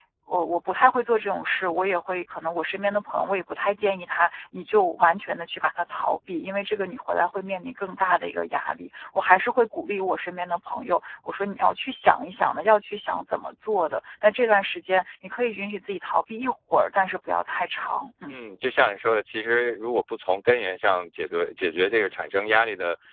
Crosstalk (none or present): none